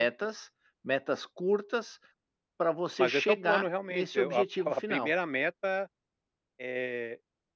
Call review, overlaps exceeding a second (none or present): present